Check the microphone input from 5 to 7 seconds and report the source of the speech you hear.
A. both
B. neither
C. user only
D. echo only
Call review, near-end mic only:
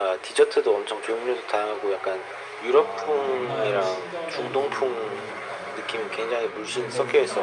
A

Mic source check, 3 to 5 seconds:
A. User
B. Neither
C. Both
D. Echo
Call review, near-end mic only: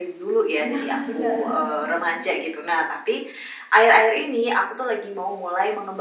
D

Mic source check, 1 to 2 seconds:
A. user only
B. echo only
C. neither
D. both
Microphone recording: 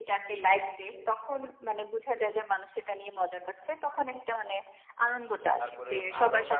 B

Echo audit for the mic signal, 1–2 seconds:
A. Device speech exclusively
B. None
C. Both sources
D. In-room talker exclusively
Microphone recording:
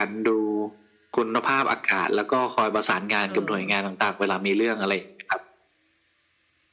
A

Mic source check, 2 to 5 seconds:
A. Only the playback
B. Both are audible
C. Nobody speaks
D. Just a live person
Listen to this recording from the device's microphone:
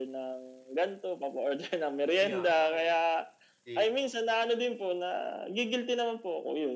B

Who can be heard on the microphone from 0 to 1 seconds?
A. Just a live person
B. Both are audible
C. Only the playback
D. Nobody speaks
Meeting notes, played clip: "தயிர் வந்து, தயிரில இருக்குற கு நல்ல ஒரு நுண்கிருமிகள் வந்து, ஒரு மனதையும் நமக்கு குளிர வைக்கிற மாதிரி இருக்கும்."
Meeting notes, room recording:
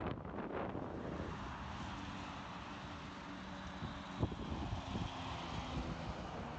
D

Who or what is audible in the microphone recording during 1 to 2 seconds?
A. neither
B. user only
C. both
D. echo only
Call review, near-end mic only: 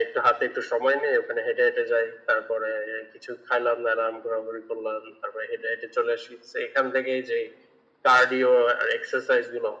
D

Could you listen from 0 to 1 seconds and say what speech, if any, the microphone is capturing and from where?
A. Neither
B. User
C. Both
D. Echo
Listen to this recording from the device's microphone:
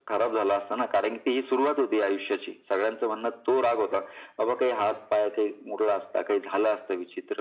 D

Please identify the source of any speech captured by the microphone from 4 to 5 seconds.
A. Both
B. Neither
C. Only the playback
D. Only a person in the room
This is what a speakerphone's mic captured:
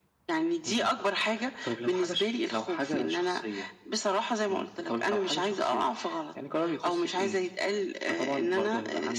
C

